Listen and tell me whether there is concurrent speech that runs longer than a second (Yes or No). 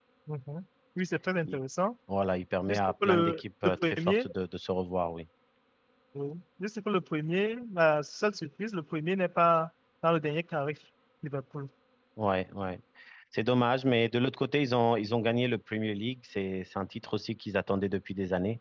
Yes